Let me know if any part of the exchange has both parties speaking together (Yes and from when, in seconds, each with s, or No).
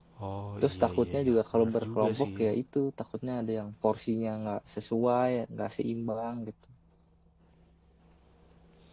Yes, from 0.6 s